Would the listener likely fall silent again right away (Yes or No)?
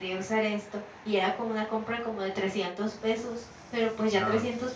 Yes